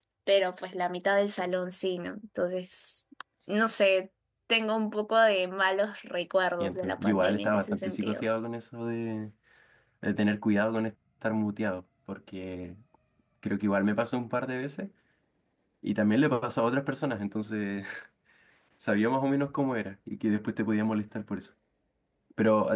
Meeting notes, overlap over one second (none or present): present